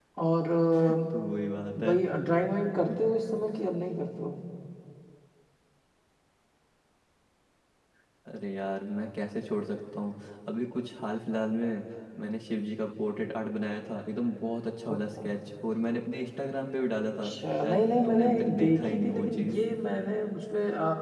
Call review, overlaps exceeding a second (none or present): present